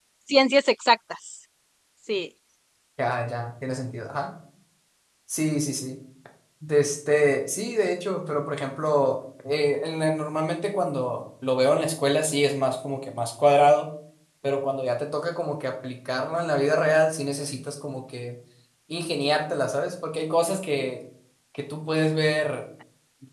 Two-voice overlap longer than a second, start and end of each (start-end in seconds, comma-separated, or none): none